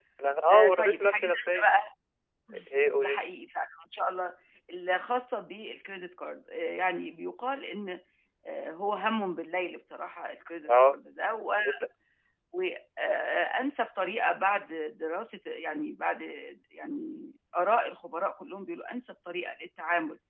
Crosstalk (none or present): present